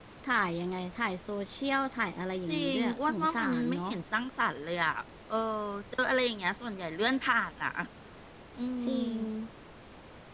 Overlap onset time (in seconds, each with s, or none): 2.5 s